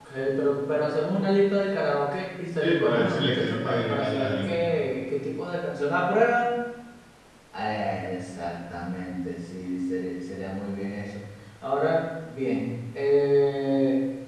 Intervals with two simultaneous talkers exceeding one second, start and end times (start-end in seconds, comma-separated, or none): 2.6-4.6